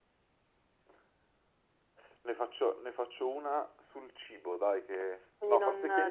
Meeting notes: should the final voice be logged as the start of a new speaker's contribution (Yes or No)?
Yes